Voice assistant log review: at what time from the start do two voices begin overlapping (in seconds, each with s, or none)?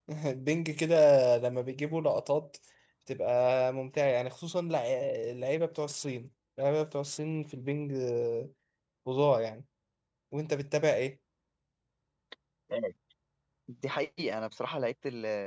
none